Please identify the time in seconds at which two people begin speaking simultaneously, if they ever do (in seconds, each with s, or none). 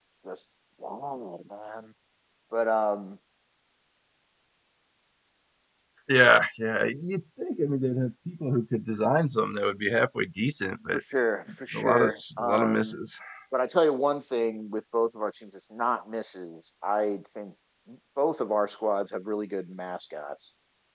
11.7 s